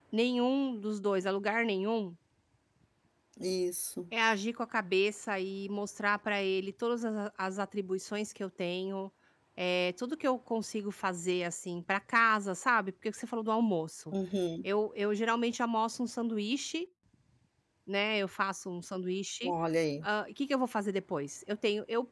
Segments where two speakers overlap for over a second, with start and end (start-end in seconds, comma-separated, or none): none